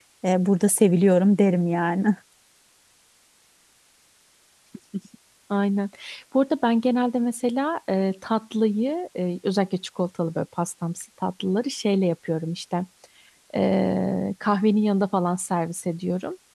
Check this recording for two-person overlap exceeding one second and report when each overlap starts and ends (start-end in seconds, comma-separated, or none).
none